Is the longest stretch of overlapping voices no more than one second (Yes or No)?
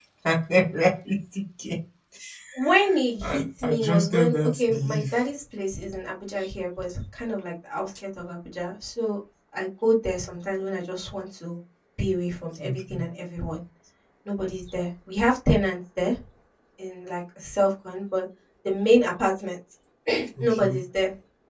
No